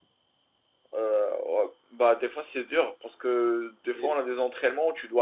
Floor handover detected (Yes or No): No